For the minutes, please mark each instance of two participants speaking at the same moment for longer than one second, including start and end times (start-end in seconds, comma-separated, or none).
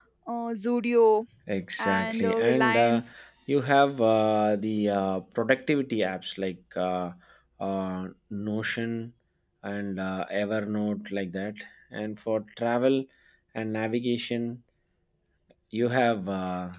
1.8-3.0